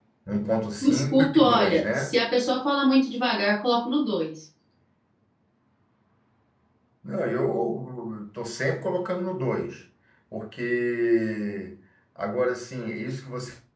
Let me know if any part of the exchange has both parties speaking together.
Yes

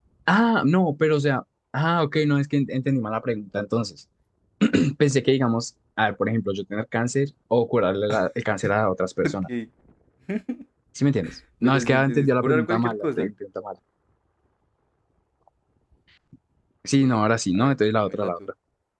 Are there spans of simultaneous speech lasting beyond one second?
Yes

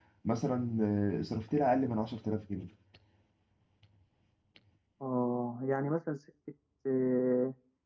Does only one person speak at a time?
Yes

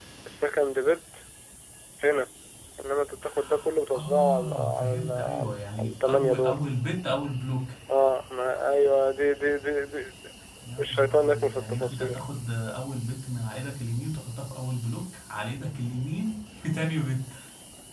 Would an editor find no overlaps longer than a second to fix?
No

